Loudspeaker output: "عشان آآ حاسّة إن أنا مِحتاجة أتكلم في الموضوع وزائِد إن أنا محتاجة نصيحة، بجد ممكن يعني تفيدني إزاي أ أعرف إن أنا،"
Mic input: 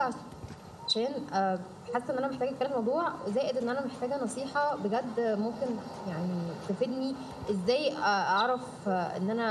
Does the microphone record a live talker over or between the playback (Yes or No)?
No